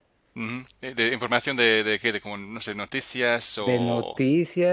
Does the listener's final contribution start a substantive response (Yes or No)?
Yes